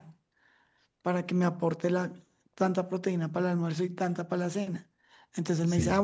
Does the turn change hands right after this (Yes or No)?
No